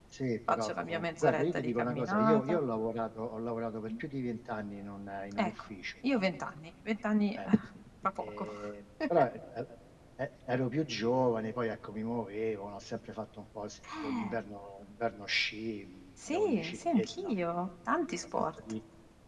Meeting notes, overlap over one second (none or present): present